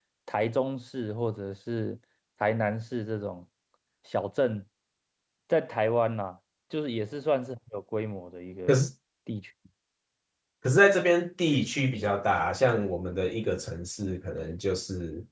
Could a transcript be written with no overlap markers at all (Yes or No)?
Yes